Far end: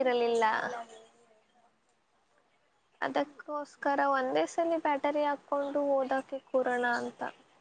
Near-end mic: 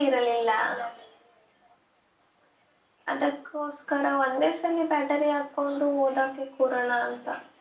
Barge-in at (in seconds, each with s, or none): none